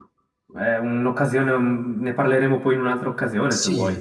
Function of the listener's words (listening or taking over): taking over